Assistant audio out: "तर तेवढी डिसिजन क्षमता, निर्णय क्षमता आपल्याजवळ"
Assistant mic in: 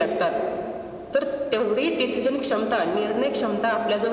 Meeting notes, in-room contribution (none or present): none